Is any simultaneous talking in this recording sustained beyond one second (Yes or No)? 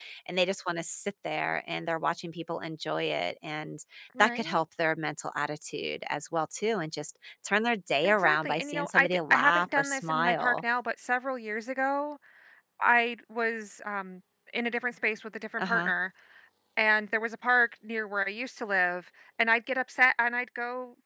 Yes